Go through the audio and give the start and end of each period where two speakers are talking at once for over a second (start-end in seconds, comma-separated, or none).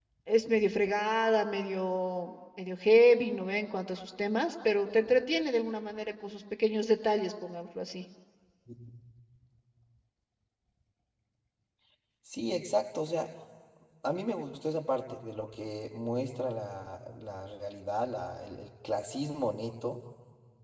none